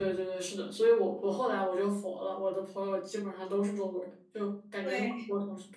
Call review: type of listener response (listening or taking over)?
listening